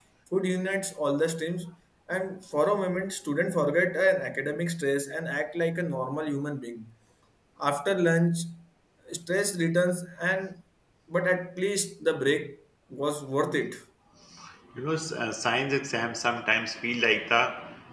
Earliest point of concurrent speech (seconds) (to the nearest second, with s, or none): none